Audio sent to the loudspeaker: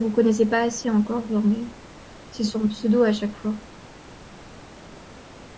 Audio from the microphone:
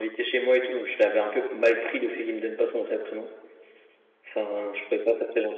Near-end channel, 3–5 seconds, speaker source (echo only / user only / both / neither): user only